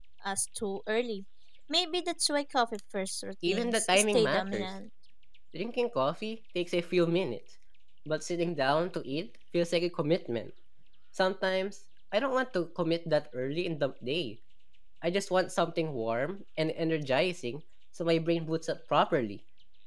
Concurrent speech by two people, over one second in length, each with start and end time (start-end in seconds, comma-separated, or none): 3.5-4.7